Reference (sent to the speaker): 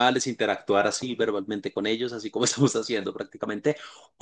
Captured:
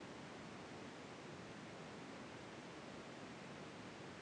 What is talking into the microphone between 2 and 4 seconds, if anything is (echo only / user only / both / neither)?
neither